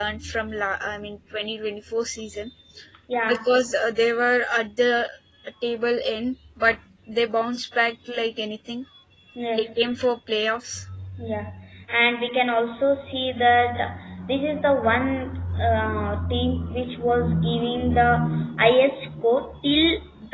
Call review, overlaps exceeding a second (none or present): none